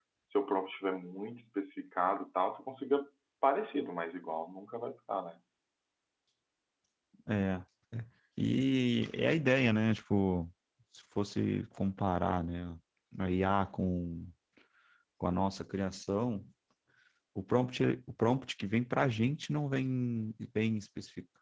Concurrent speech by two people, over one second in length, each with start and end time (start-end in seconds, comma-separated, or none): none